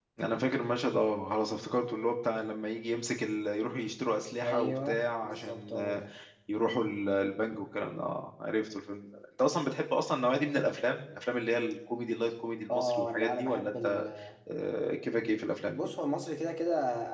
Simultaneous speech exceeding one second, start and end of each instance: 4.4-6.0, 12.7-14.1

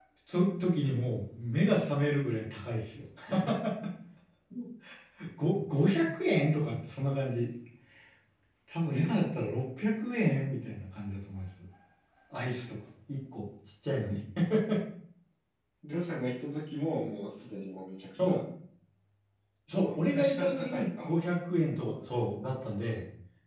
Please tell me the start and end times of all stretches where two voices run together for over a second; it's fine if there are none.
19.9-21.1

